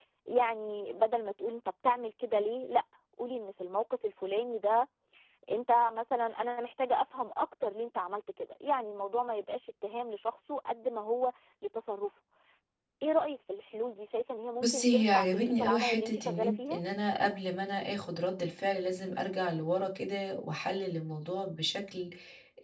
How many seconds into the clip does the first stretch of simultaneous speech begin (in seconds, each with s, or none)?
14.6 s